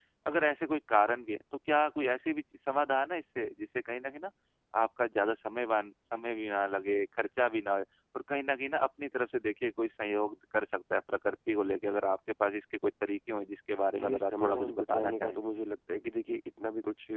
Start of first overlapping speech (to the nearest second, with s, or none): 14 s